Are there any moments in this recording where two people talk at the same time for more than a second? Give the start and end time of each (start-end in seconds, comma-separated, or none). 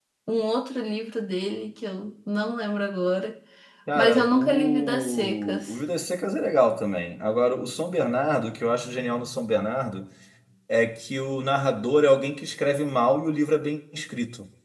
4.0-5.8